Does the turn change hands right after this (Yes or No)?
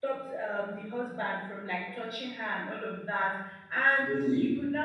No